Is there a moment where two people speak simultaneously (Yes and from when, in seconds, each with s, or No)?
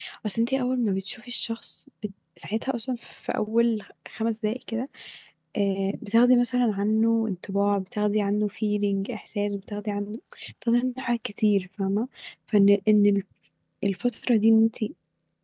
No